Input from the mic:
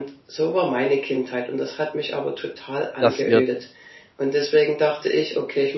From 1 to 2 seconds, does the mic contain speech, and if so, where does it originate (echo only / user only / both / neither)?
echo only